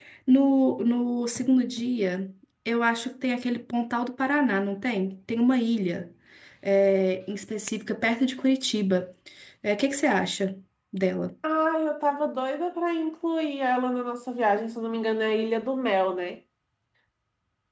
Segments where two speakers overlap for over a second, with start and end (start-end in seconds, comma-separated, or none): none